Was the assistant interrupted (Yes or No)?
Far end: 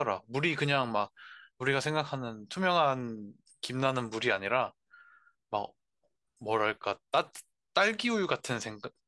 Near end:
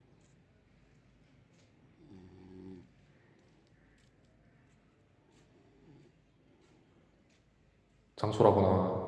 Yes